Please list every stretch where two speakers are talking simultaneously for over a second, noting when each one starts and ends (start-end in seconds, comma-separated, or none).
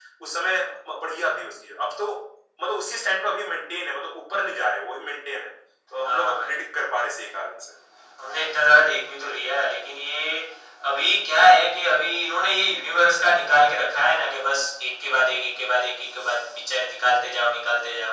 none